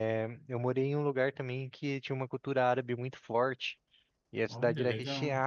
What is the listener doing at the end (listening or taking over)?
listening